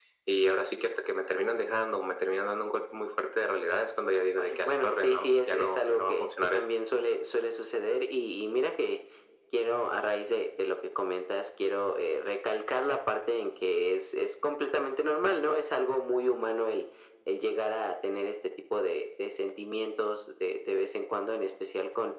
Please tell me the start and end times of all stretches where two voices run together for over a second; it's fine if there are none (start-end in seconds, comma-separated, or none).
4.4-6.6